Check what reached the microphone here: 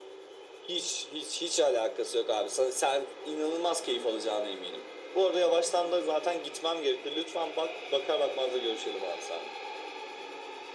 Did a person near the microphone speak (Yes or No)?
No